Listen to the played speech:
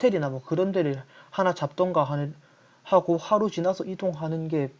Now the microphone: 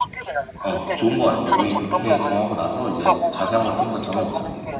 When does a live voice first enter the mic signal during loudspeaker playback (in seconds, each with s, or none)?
0.6 s